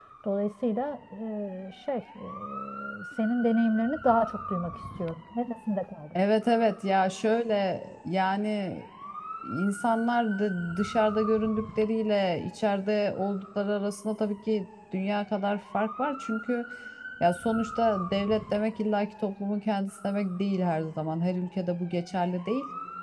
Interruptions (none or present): none